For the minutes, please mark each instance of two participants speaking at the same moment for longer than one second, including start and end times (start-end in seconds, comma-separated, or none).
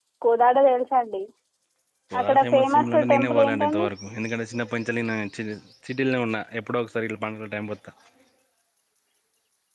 2.2-3.9